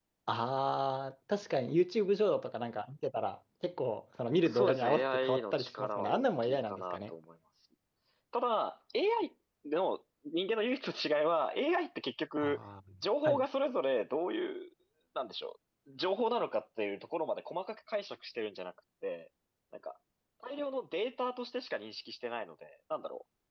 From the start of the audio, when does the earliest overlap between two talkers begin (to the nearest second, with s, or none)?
4 s